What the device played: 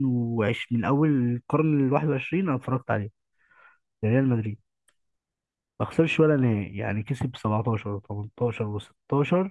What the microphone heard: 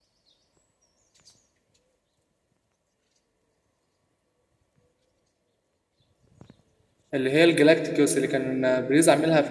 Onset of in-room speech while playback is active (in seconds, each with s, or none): 7.1 s